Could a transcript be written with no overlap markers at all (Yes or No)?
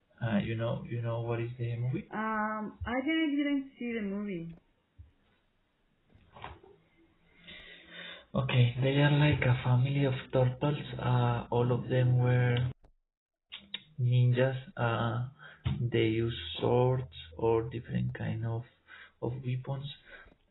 Yes